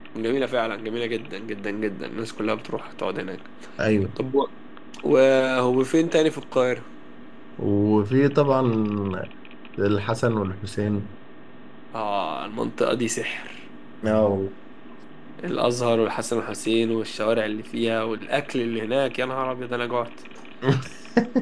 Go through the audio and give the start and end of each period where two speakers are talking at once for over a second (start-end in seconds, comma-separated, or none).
none